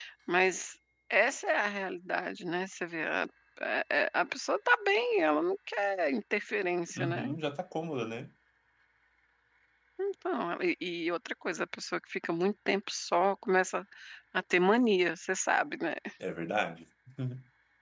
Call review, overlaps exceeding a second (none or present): none